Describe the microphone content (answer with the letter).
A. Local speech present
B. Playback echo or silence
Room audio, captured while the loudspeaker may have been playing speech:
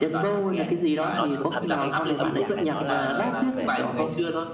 A